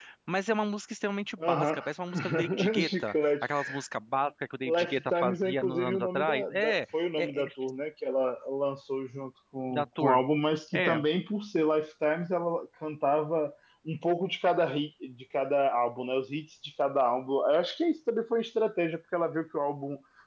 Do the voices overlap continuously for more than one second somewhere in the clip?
Yes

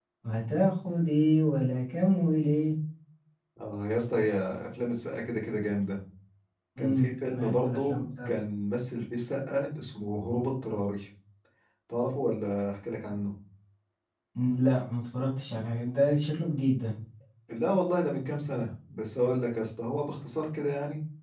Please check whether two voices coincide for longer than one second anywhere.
Yes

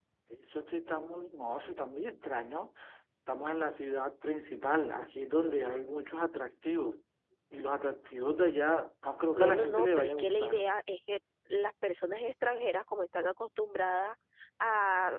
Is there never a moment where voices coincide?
No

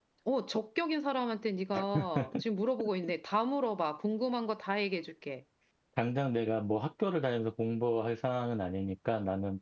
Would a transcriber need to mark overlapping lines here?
No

